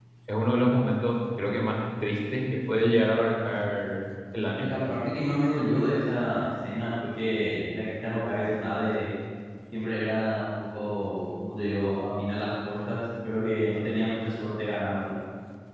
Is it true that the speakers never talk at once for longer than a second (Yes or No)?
Yes